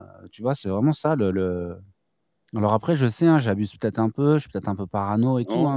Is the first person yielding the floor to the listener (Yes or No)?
Yes